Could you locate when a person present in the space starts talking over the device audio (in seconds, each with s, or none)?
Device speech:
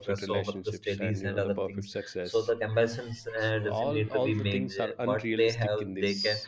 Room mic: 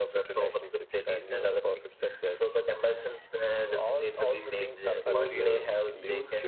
4.9 s